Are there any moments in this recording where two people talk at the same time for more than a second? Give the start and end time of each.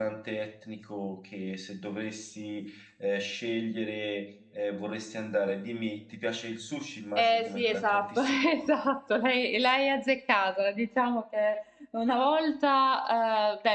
7.2-8.4

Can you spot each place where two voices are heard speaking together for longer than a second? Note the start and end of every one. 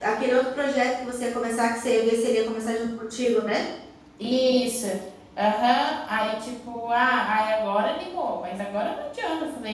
none

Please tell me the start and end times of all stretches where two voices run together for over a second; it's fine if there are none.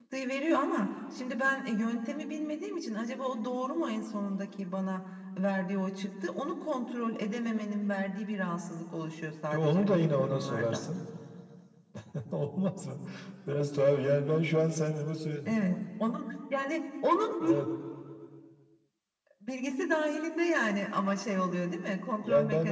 9.5-10.9

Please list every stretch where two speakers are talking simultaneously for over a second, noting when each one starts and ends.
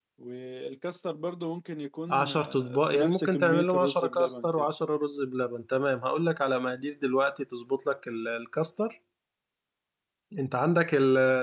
2.1-4.7

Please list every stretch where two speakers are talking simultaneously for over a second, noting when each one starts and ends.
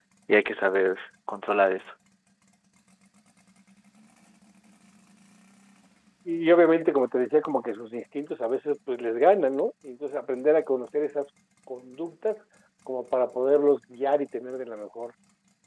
none

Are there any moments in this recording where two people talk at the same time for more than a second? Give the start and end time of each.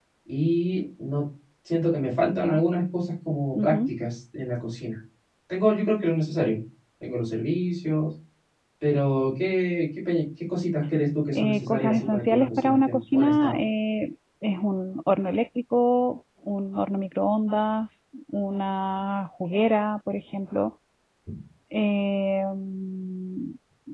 11.3-13.6

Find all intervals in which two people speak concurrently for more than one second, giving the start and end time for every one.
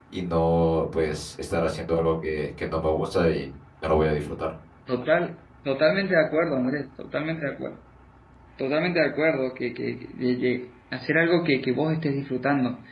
none

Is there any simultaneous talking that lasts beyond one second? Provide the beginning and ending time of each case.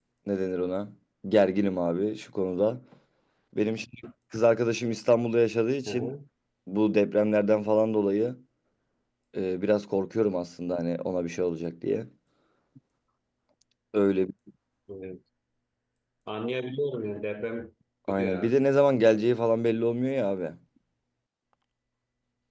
none

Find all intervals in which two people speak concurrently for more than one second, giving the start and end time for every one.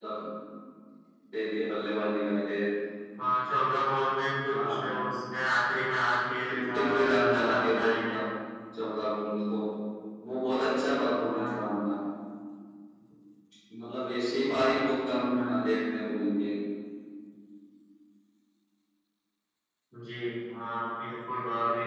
6.5-8.2

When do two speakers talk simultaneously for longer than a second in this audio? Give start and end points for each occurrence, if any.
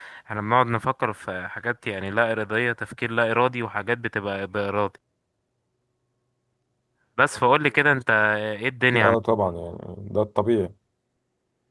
none

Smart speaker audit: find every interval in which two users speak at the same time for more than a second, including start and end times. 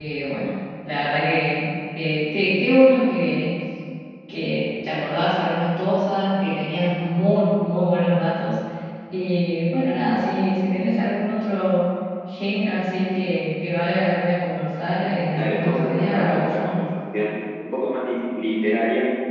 15.3-16.8

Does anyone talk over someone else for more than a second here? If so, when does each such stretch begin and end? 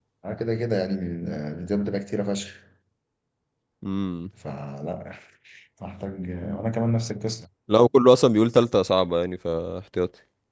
none

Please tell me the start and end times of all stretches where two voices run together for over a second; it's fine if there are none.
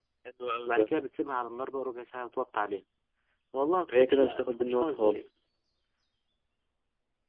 3.9-5.3

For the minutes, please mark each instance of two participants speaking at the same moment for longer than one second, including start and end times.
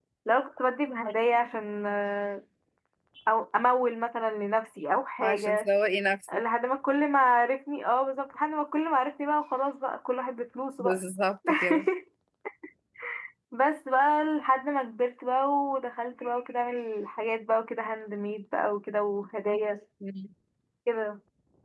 none

